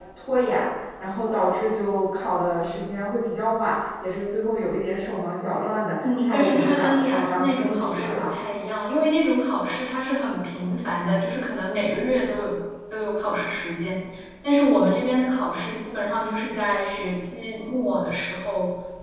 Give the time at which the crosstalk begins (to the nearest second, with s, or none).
6 s